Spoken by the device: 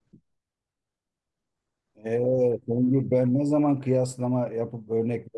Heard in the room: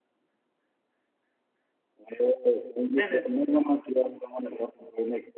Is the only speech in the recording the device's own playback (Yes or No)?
No